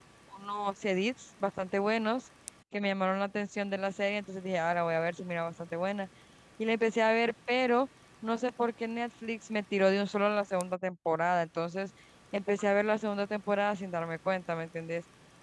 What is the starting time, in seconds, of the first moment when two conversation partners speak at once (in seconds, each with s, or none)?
none